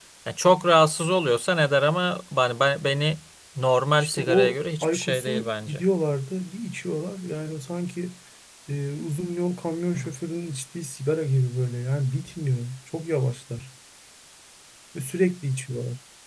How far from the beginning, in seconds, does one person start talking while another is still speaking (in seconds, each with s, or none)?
4.0 s